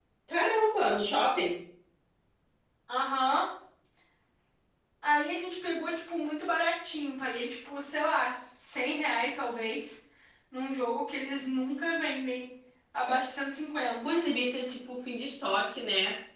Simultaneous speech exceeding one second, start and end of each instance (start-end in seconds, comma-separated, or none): none